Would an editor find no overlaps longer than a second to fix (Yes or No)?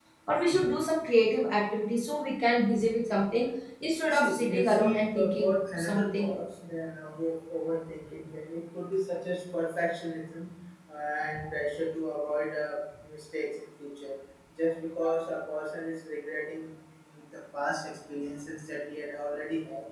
No